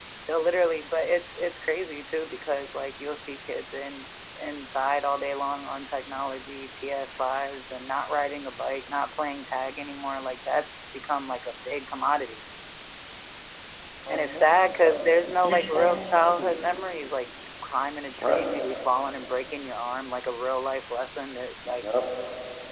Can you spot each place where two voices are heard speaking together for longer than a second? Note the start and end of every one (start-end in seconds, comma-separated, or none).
14.1-16.5